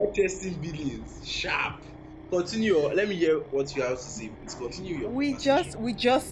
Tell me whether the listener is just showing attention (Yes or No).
No